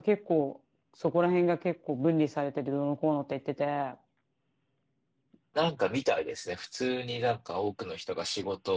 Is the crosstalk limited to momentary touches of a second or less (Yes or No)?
Yes